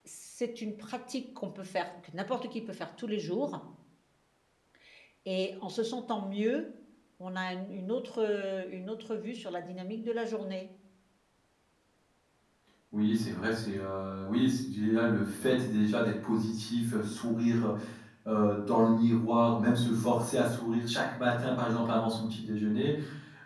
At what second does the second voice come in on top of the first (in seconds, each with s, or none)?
none